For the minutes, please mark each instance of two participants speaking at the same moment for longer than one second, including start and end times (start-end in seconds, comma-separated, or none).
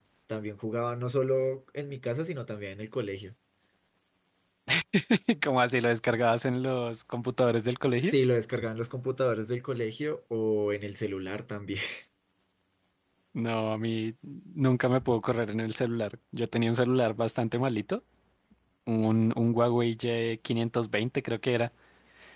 none